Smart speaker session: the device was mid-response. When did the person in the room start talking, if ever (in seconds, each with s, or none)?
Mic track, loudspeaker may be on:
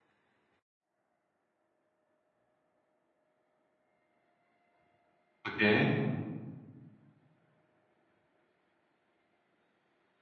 5.5 s